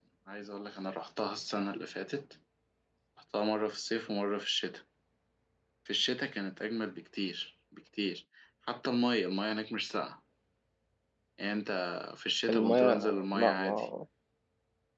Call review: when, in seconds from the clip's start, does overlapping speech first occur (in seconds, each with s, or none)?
12.5 s